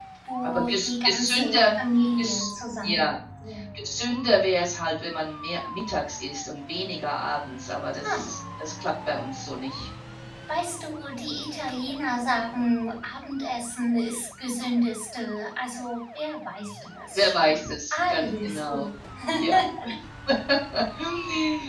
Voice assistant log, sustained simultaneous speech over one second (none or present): present